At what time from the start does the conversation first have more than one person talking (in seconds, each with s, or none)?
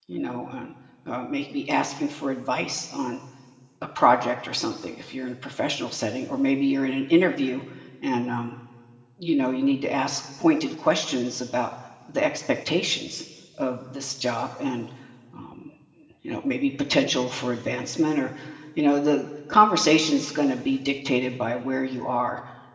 none